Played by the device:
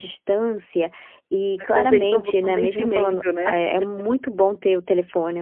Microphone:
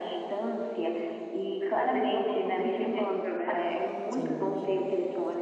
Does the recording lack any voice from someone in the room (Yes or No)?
No